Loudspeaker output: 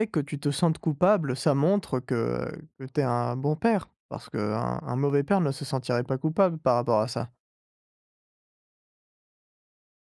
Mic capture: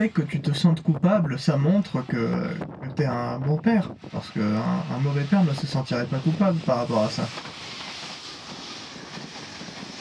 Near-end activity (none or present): none